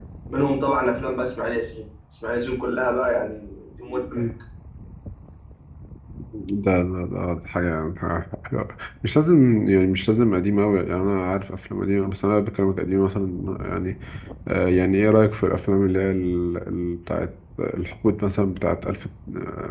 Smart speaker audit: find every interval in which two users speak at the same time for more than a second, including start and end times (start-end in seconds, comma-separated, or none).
none